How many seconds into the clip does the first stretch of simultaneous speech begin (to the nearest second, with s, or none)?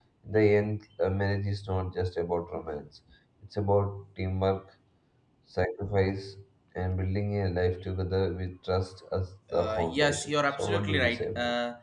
10 s